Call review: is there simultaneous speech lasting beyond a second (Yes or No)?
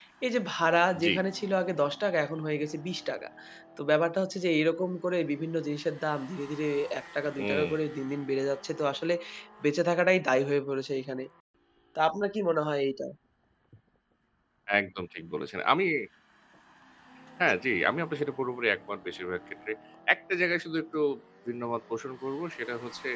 No